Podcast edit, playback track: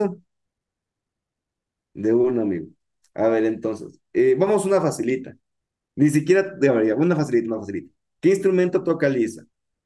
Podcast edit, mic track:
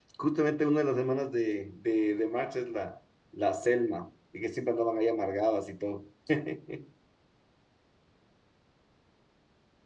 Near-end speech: present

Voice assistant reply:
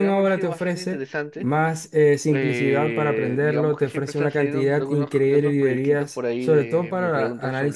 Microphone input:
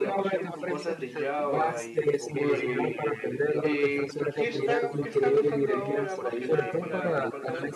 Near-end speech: present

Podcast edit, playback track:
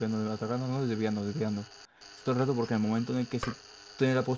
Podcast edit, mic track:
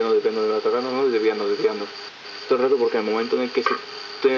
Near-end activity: none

